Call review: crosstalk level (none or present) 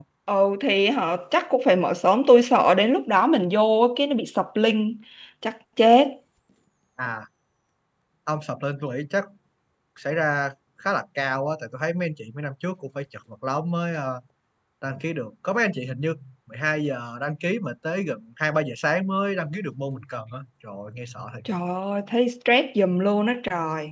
none